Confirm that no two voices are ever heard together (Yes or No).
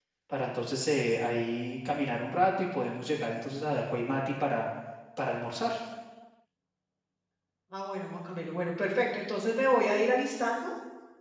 Yes